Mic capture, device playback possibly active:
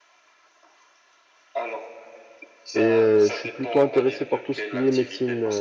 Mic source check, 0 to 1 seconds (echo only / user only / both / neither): neither